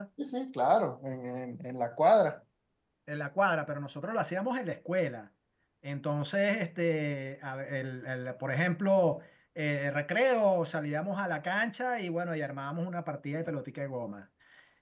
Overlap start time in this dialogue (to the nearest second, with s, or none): none